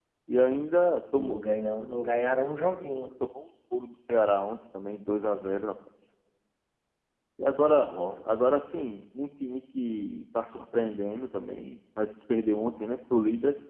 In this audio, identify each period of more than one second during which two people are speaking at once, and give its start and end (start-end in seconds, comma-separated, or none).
none